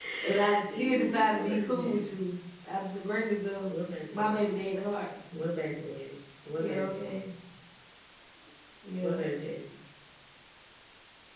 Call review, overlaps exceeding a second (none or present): present